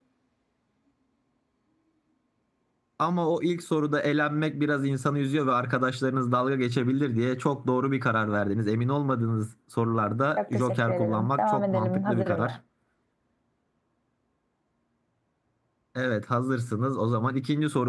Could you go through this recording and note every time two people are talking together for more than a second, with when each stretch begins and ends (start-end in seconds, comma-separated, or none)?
10.4-12.6